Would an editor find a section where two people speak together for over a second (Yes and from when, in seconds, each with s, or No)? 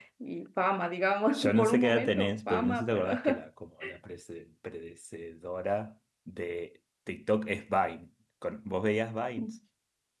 Yes, from 1.3 s